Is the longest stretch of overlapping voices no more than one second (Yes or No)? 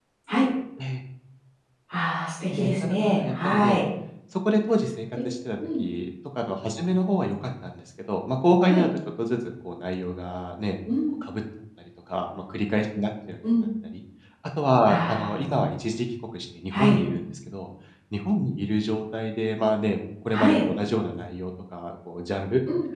No